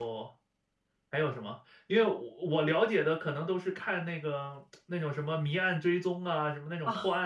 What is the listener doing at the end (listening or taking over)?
listening